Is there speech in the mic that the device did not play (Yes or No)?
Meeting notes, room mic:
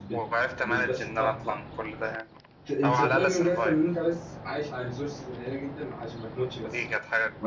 Yes